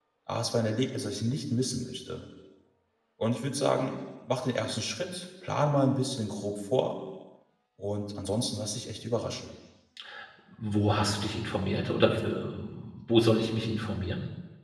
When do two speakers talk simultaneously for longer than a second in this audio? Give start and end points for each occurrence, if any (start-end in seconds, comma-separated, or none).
none